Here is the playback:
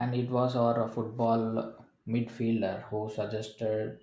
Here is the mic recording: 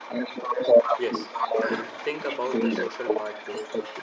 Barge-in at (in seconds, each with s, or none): 0.9 s